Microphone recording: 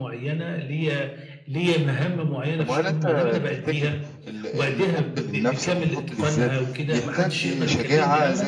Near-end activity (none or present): present